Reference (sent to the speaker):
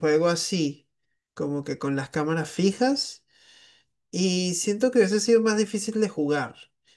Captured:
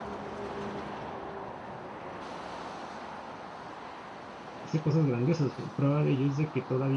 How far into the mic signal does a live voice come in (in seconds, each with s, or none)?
4.6 s